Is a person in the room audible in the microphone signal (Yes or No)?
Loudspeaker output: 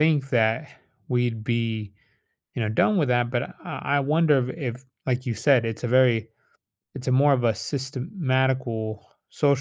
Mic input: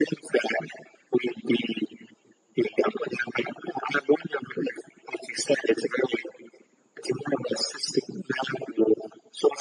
No